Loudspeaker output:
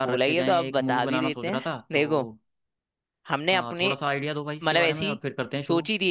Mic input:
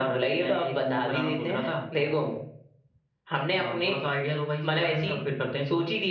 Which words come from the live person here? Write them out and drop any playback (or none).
none